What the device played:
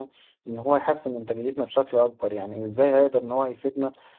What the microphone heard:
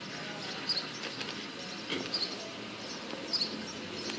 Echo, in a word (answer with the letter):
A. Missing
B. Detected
A